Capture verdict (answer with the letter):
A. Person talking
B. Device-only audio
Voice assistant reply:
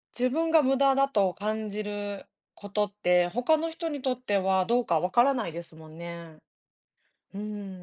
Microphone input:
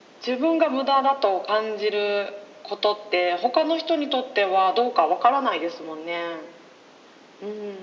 B